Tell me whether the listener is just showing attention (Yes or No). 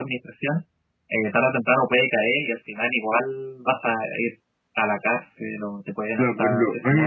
No